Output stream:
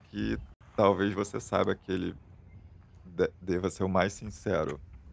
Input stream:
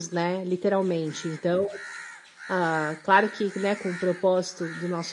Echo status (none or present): none